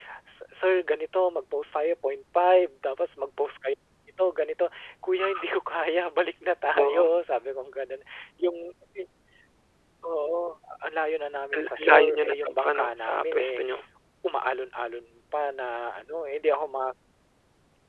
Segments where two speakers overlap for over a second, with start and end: 11.5-13.6

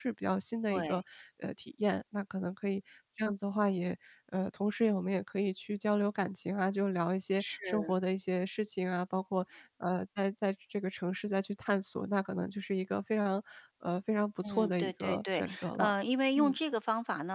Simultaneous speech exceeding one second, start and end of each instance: 14.4-15.9

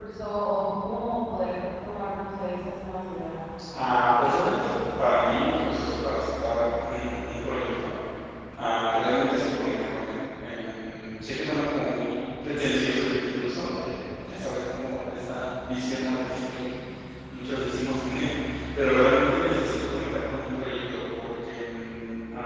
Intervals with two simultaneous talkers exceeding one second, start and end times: none

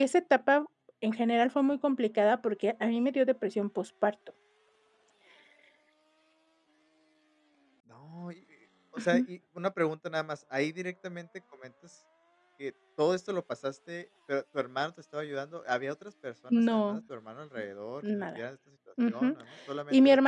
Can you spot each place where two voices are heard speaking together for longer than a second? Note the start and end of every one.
none

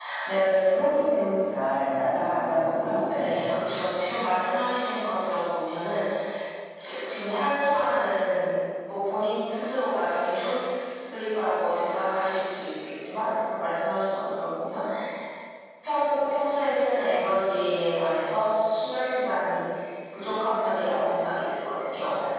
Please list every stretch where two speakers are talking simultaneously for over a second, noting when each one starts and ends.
none

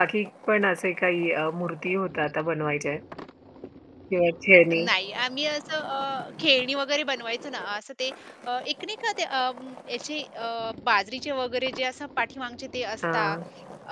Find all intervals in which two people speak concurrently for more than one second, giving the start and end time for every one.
none

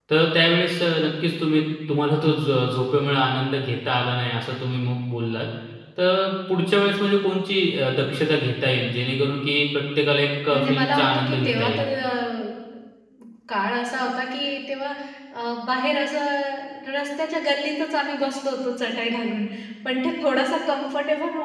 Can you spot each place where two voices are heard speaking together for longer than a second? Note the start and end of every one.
10.5-11.8

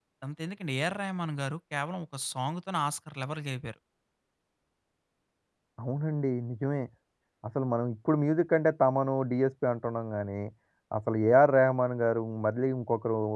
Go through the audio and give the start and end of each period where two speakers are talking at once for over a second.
none

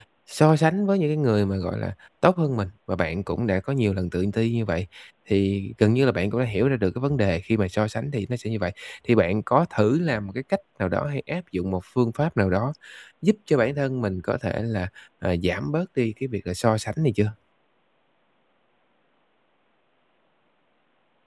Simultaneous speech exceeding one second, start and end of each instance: none

